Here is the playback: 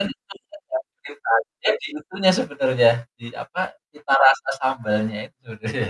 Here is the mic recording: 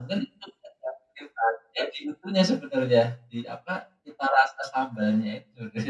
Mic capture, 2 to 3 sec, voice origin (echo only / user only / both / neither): echo only